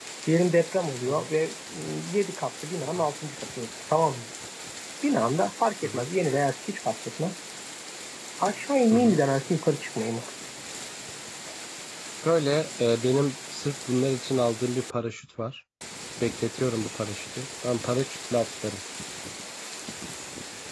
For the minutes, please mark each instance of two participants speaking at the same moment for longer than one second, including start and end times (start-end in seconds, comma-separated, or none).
none